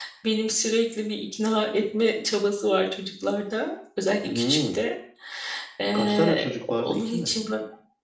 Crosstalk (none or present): present